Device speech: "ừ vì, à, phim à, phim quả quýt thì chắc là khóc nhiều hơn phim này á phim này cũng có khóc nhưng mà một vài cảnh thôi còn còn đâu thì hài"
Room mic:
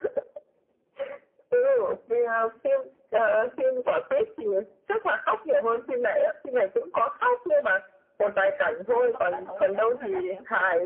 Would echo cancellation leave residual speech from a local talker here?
Yes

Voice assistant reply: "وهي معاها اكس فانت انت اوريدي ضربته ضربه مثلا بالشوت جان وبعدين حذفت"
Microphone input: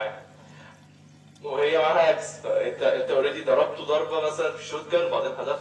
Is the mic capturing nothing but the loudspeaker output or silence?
Yes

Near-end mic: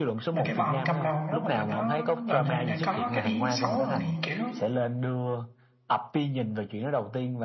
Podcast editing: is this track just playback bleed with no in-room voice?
No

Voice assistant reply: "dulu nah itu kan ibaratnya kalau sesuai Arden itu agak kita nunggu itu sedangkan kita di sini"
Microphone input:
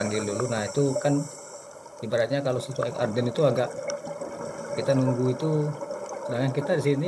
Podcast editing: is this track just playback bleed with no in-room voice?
Yes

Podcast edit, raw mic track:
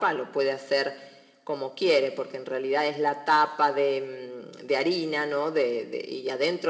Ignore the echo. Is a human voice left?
No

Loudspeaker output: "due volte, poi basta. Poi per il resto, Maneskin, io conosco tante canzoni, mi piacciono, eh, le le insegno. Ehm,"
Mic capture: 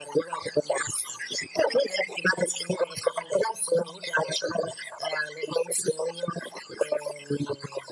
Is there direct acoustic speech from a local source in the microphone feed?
No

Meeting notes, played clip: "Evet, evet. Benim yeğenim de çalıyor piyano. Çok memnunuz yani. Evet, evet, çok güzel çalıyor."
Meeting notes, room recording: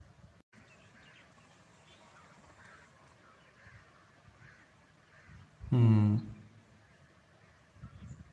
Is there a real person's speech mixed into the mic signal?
Yes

